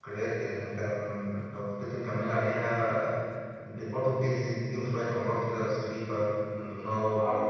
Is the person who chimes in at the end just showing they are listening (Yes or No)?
Yes